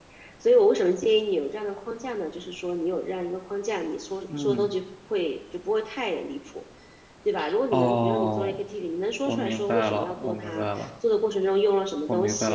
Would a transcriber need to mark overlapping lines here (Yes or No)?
Yes